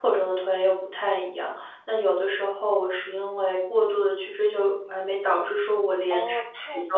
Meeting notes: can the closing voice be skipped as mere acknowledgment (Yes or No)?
No